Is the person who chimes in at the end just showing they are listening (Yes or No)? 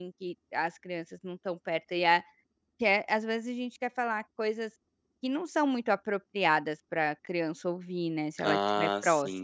No